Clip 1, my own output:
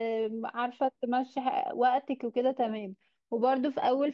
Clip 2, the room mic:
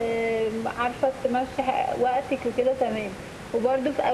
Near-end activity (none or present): none